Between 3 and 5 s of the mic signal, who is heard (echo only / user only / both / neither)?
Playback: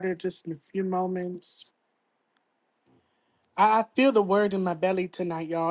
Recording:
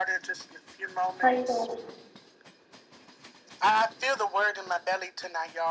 echo only